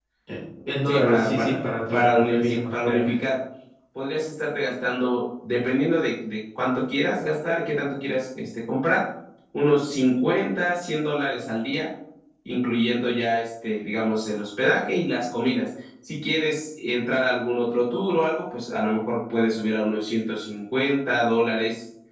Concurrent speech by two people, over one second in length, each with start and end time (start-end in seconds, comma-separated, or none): 0.9-3.1